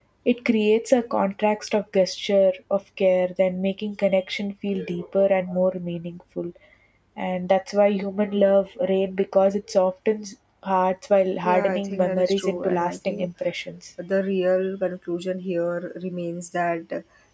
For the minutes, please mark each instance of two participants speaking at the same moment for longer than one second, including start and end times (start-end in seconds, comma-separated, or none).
11.4-13.3